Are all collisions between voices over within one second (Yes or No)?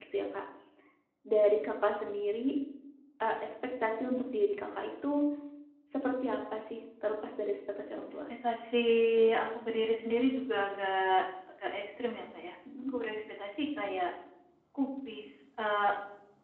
Yes